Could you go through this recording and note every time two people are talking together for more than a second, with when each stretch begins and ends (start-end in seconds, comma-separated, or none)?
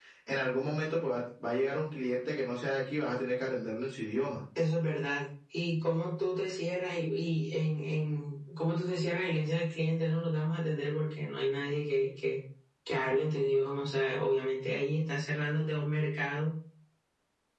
none